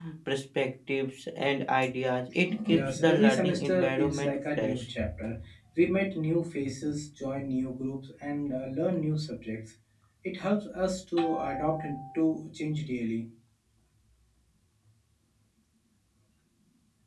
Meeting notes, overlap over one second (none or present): present